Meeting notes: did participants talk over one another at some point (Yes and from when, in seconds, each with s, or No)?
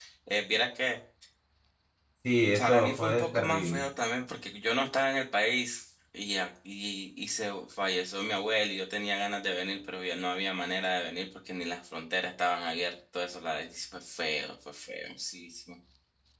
Yes, from 2.6 s